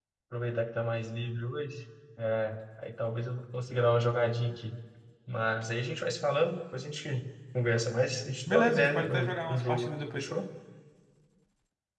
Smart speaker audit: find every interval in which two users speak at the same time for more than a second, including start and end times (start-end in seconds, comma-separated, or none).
8.5-10.3